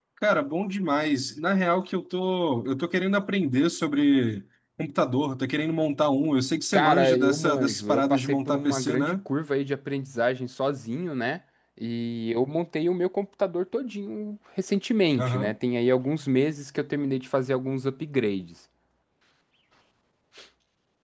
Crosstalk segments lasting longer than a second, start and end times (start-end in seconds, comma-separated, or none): 6.7-9.2